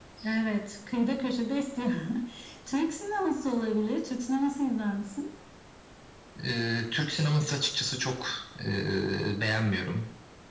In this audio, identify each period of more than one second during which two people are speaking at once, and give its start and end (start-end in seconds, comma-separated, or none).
none